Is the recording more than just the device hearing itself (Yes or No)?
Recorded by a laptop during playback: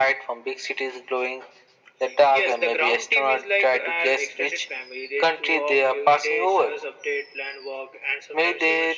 No